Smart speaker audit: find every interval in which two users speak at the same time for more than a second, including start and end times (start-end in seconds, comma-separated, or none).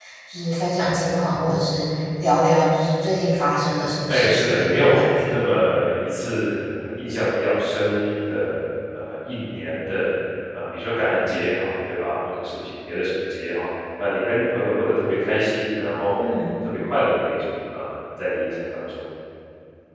4.1-5.4